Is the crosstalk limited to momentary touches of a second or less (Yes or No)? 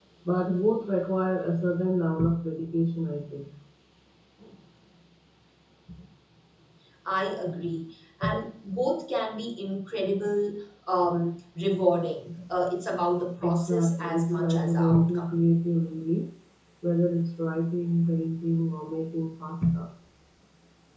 No